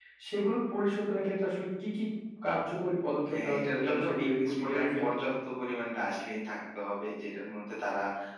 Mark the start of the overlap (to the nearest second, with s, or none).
3 s